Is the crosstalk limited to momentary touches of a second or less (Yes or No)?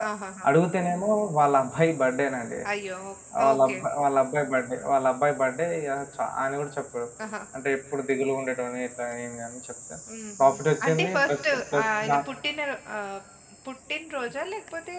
No